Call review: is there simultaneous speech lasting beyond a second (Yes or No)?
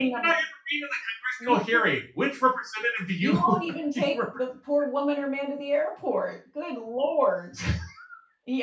No